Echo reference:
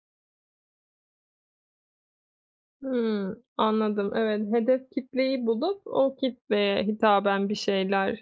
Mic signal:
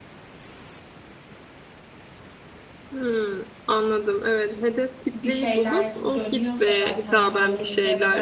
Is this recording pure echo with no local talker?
No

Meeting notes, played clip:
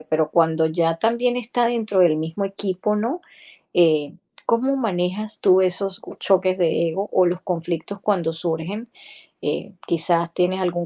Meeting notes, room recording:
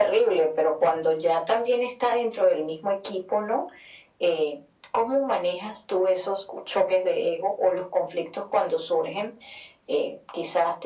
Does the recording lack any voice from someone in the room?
Yes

